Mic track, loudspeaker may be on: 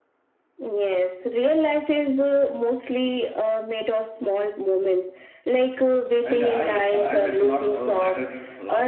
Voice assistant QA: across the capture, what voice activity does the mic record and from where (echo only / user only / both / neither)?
both